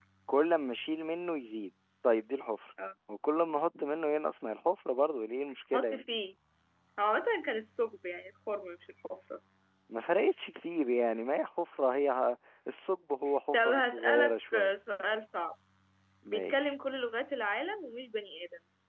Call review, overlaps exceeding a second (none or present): present